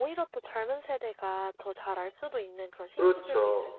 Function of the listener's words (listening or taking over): taking over